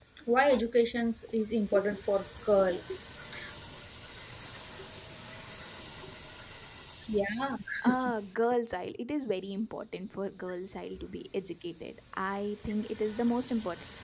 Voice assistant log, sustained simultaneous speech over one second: none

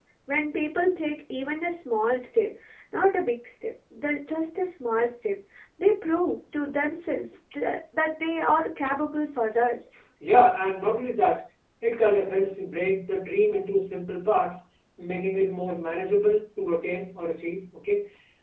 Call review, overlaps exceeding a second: none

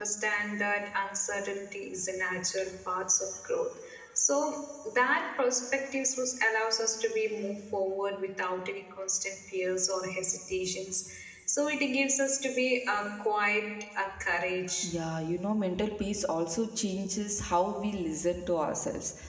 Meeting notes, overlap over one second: none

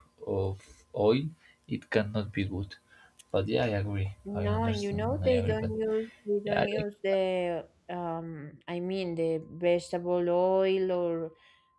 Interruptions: present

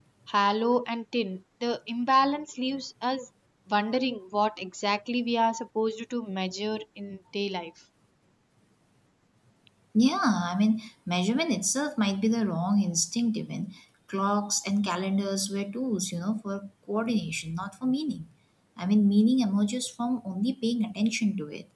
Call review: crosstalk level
none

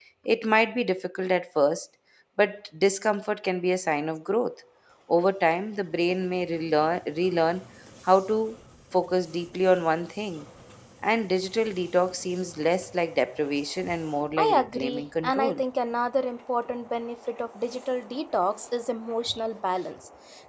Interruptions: present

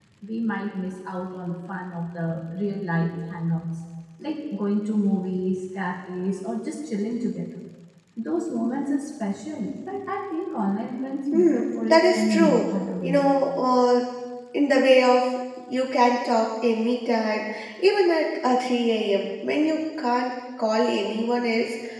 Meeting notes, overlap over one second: present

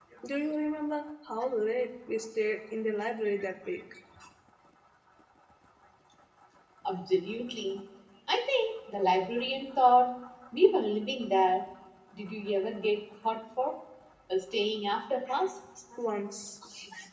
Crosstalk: none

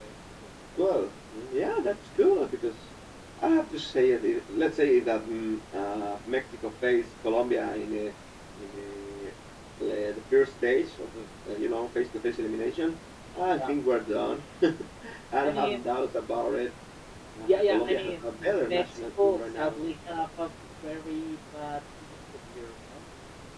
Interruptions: present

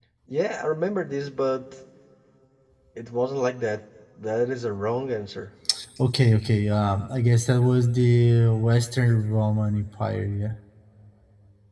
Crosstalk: none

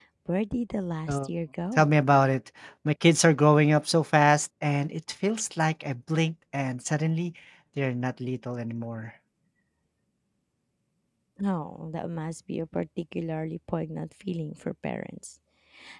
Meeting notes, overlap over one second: none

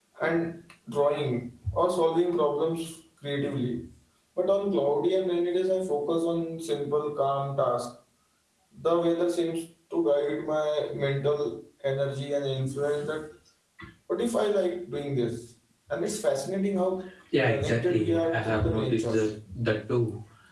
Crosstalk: present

